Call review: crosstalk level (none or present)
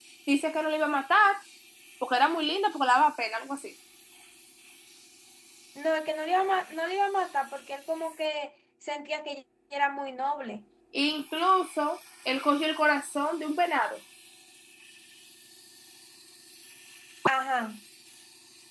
none